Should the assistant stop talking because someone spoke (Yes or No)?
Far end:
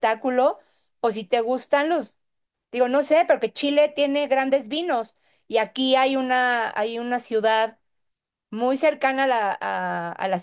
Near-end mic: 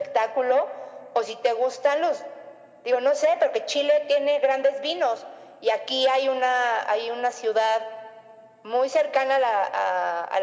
No